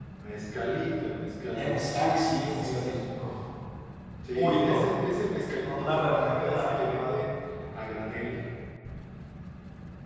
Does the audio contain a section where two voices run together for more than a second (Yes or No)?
Yes